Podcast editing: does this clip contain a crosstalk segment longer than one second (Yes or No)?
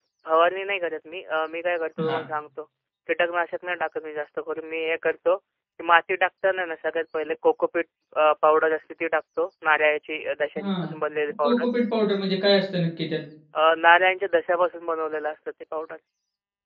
No